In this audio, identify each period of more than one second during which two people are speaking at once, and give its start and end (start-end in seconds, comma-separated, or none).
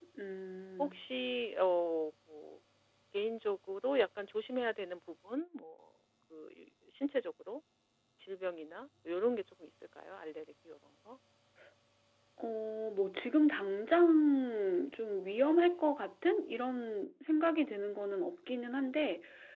none